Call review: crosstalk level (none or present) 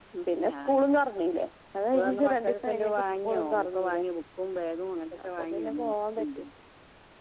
present